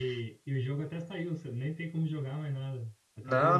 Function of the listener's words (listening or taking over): taking over